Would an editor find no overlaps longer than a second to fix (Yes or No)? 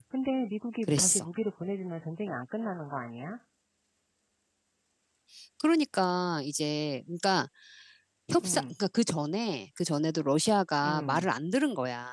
Yes